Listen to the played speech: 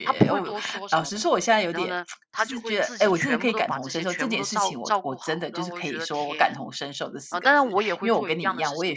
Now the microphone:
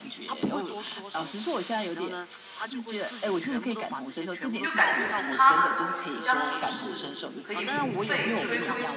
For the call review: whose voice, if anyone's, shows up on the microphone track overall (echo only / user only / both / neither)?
both